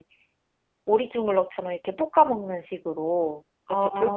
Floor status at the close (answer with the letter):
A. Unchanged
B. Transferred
A